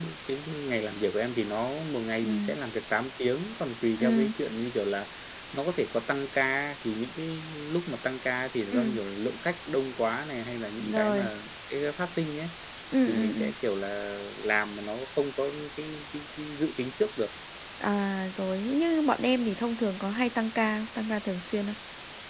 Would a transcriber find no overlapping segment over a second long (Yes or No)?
Yes